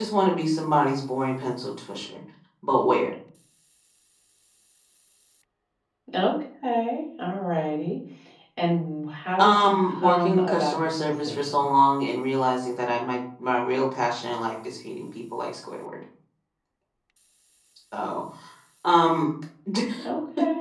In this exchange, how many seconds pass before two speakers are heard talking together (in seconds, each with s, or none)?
9.4 s